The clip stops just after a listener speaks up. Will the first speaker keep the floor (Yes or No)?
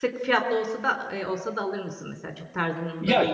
No